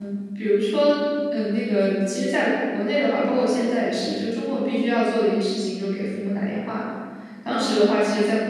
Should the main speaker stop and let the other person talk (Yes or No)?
No